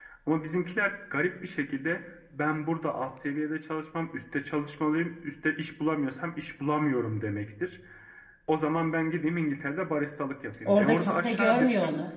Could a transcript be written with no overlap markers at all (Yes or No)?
No